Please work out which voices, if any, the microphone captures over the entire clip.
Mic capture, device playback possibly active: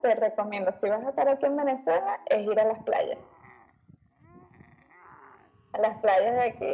echo only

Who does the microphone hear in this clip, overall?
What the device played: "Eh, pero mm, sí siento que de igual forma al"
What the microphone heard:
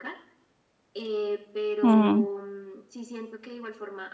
both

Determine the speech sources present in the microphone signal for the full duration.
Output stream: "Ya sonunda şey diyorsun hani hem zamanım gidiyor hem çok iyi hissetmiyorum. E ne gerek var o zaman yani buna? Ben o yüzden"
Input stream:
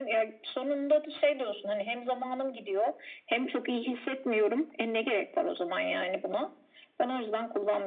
echo only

